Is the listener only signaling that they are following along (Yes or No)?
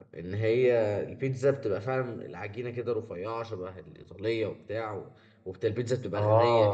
Yes